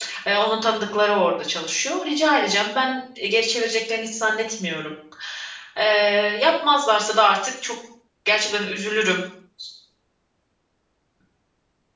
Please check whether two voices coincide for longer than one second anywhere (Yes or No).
No